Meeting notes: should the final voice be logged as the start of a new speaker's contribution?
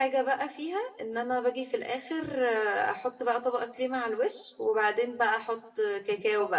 No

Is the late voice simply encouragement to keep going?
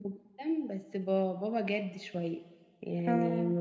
Yes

